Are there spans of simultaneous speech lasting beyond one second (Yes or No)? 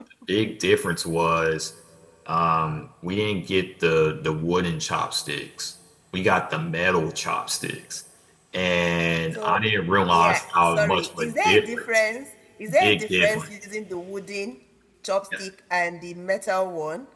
Yes